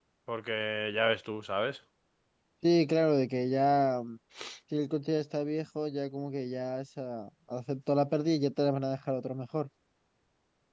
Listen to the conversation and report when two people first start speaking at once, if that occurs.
none

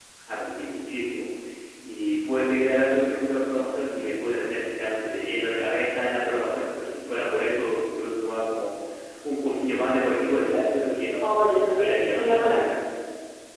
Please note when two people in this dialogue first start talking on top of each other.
11.2 s

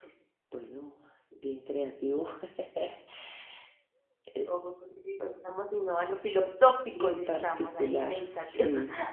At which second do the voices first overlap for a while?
6.9 s

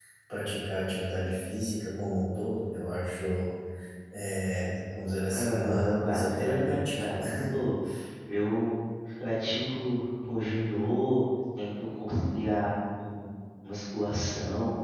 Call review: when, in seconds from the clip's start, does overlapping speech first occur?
5.3 s

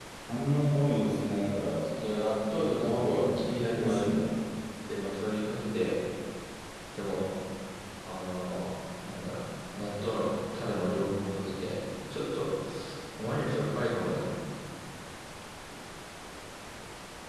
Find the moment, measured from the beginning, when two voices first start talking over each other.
2.8 s

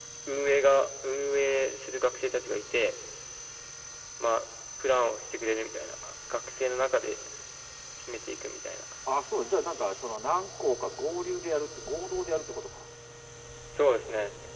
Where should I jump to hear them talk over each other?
none

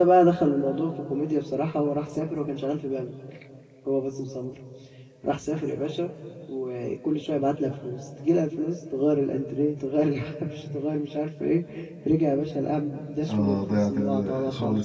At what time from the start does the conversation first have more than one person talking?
13.3 s

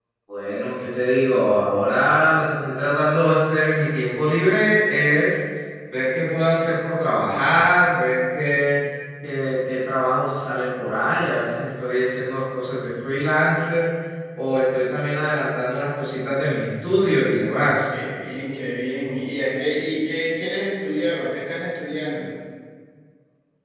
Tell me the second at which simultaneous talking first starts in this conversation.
none

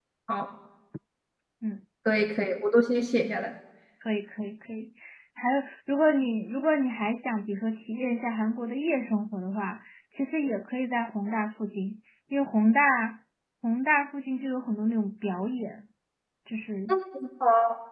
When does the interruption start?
none

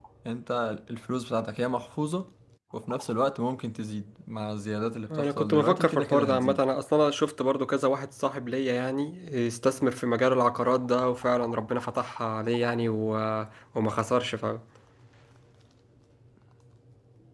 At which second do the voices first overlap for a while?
5.1 s

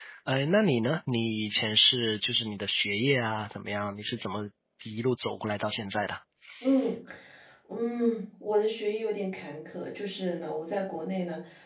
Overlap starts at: none

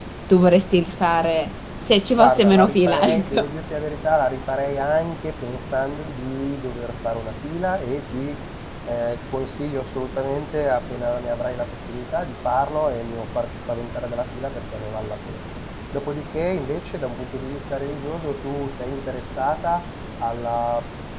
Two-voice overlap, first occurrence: 2.2 s

